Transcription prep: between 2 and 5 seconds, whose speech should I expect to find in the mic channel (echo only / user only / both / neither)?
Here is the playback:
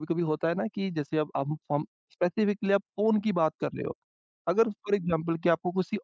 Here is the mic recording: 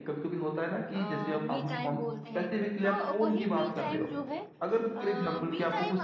both